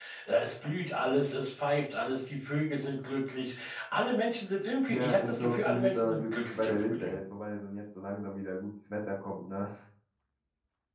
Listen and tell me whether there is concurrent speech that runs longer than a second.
Yes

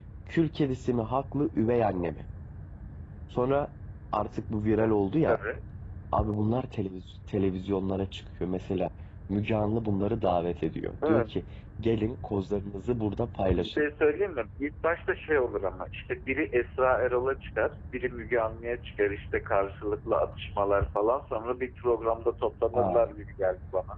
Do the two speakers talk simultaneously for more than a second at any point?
No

